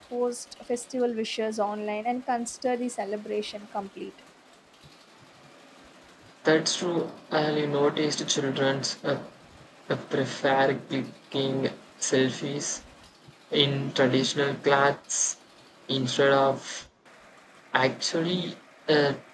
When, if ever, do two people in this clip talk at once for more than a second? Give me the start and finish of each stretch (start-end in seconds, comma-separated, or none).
none